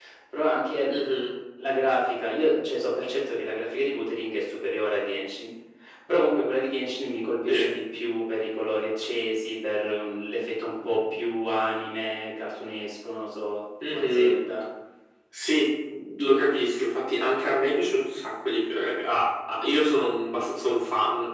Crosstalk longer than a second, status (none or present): none